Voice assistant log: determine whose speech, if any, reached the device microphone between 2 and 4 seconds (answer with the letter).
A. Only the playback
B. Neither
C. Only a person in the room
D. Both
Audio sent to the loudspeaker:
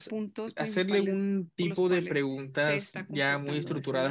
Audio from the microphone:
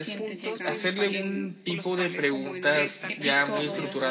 D